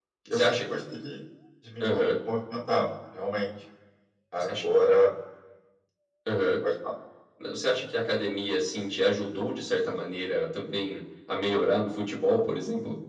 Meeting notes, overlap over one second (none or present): none